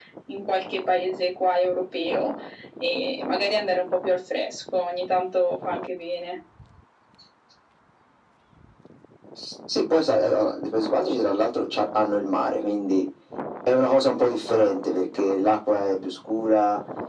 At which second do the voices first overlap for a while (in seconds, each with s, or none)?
none